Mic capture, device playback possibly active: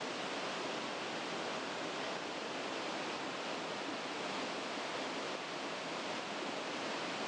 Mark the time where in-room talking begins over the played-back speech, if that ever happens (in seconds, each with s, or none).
none